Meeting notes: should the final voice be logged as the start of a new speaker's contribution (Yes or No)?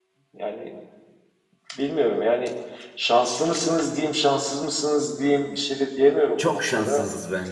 Yes